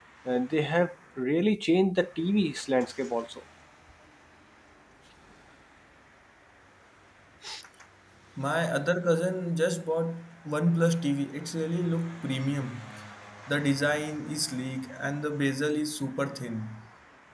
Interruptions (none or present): none